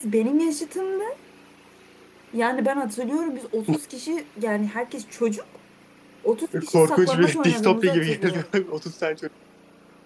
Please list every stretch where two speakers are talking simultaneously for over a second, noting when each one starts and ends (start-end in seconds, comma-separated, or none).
6.6-8.4